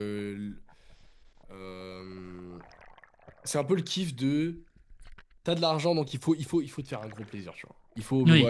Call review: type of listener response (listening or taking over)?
listening